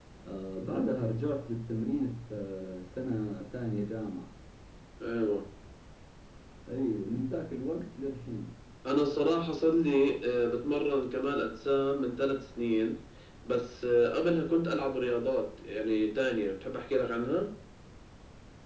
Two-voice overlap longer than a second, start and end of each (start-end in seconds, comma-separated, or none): none